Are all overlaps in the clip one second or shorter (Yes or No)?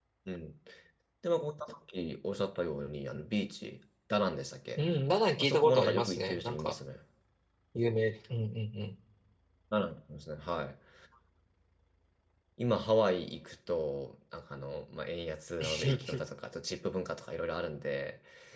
No